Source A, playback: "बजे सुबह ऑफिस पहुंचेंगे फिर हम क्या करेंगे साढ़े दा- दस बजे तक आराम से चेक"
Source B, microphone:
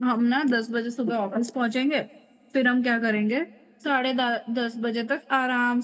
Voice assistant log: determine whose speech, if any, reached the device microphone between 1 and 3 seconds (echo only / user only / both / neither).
echo only